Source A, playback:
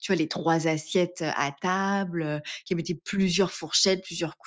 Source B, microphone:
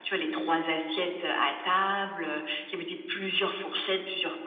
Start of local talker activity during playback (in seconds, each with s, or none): none